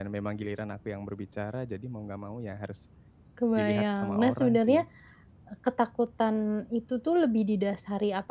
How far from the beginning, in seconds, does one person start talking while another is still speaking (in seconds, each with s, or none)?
3.6 s